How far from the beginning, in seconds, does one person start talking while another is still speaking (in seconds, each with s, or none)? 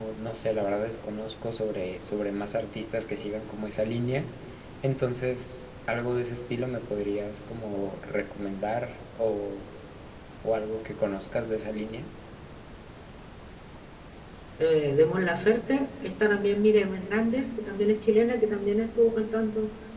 none